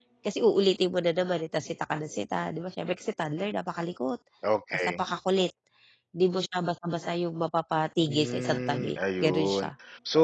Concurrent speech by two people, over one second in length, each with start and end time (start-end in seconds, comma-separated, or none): 8.1-9.7